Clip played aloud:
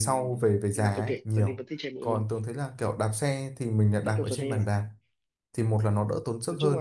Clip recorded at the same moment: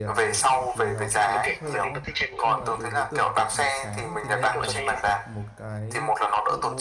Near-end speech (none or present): present